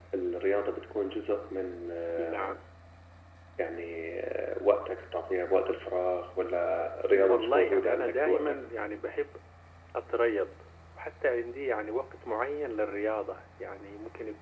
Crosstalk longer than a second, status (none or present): present